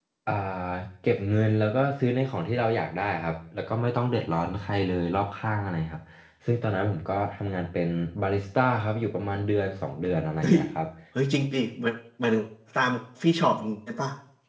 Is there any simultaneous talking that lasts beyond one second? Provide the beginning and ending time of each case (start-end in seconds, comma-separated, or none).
none